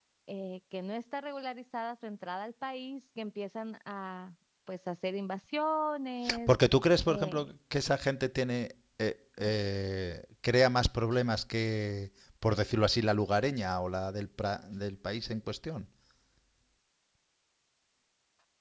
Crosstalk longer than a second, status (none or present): none